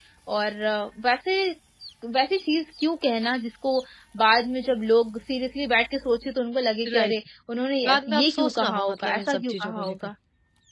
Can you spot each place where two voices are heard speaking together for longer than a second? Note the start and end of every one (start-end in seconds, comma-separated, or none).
7.9-10.1